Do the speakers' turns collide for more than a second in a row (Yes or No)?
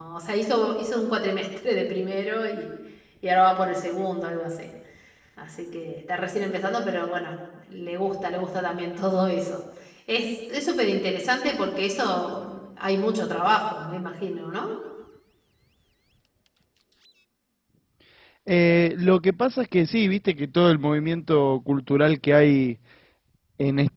No